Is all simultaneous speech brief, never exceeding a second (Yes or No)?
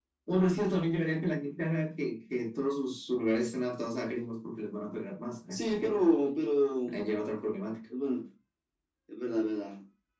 Yes